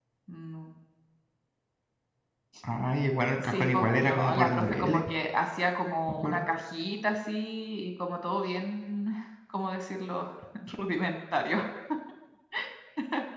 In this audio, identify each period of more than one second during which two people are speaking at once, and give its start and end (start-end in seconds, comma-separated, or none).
3.5-5.0